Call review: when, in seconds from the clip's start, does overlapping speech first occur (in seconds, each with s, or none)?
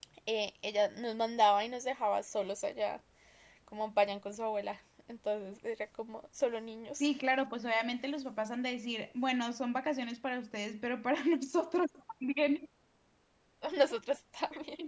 none